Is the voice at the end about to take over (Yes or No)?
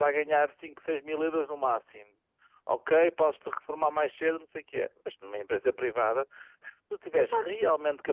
No